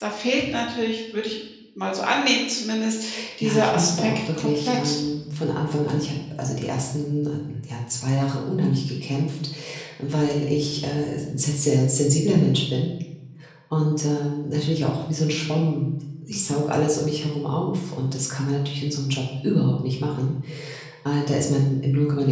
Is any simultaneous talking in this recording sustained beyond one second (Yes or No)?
Yes